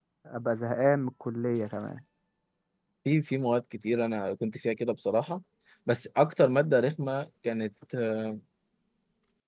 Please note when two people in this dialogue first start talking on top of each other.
none

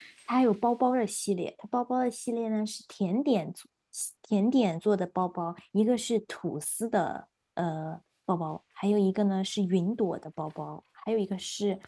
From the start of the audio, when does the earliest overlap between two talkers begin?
none

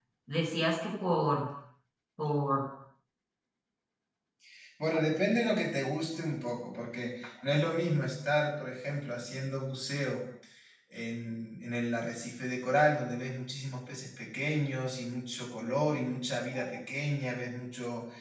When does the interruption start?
none

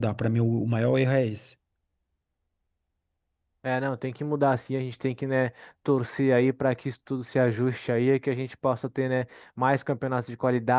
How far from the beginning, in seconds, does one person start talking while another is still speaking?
none

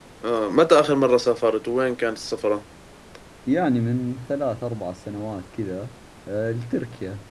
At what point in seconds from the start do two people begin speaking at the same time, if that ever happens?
none

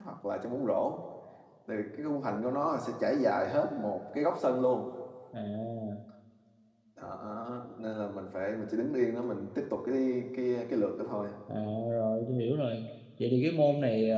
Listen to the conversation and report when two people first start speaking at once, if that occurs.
none

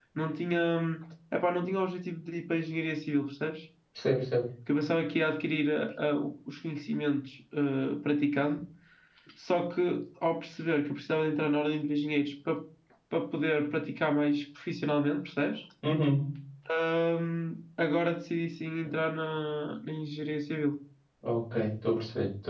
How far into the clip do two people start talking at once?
none

